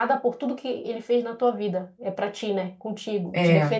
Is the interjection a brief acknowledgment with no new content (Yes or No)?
Yes